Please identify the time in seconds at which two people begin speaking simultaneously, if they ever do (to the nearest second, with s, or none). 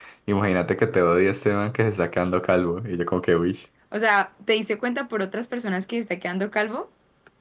none